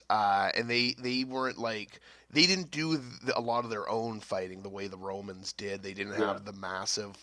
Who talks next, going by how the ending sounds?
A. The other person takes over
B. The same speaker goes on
B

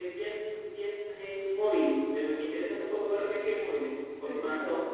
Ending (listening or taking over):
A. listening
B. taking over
B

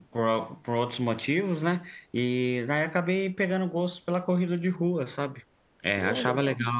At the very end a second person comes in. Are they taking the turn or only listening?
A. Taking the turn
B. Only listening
B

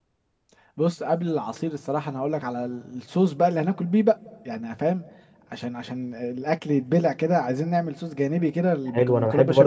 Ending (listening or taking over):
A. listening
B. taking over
B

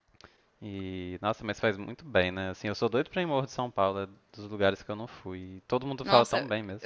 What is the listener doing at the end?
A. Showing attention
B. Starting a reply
B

